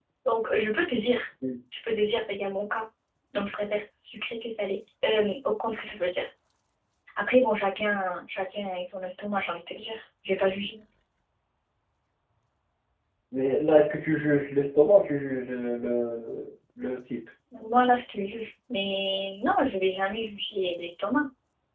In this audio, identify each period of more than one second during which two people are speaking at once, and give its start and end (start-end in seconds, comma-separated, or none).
none